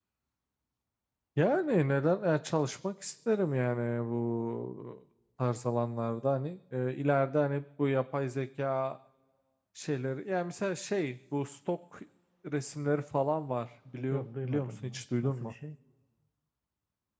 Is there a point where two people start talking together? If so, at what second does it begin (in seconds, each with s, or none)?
14.1 s